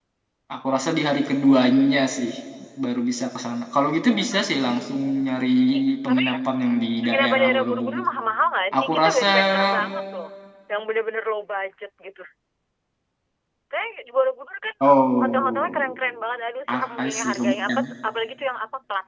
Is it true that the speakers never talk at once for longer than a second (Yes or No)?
No